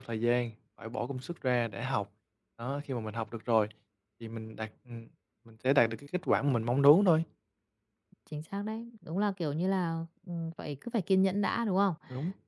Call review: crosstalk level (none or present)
none